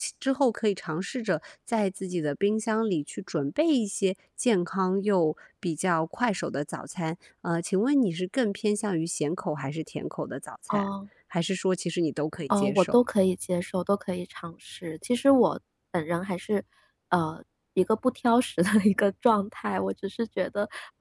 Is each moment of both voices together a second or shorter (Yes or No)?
Yes